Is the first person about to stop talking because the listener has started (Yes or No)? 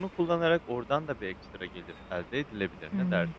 Yes